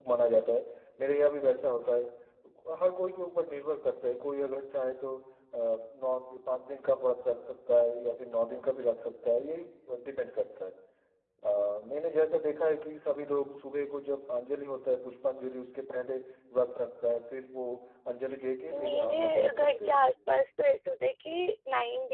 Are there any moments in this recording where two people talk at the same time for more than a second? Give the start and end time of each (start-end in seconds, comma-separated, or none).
18.7-19.9